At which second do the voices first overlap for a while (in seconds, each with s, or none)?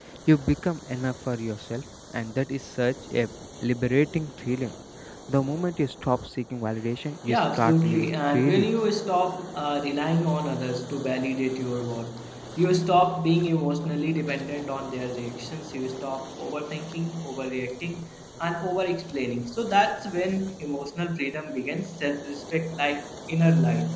7.3 s